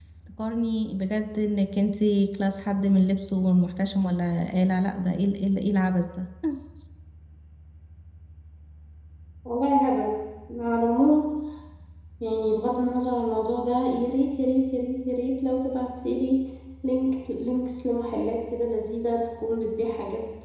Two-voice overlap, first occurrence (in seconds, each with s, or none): none